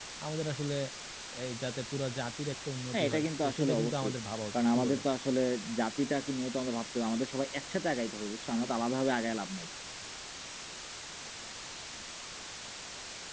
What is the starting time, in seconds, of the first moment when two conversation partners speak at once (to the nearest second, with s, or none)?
3 s